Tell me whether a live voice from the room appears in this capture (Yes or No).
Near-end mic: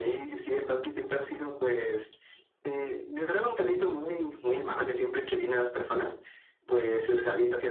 No